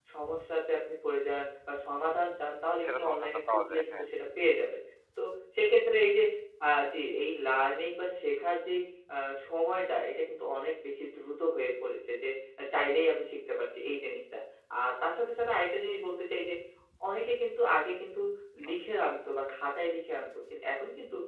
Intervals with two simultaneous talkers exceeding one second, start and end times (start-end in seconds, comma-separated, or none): 2.8-4.1